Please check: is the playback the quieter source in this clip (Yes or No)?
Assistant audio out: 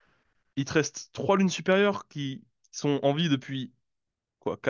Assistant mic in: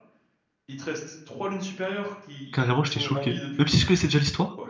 Yes